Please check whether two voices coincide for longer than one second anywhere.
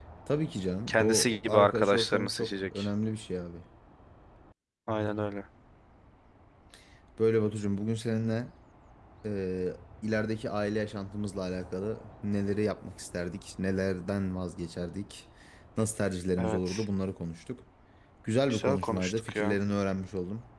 Yes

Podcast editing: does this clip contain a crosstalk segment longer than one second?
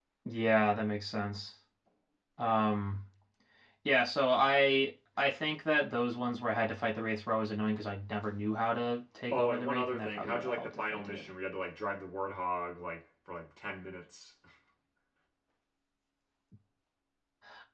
Yes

